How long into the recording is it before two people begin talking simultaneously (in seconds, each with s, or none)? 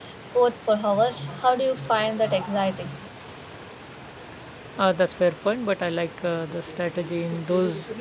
none